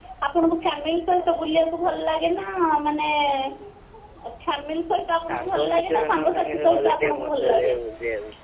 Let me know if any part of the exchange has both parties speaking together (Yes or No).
Yes